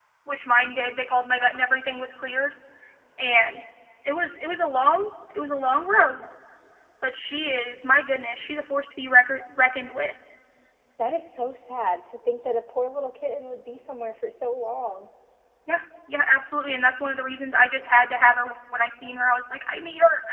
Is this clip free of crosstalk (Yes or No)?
Yes